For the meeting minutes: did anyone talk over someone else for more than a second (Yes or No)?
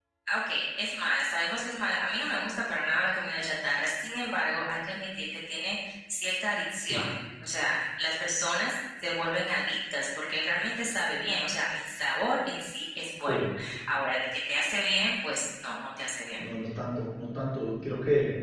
No